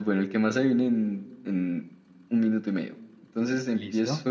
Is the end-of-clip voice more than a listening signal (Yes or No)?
No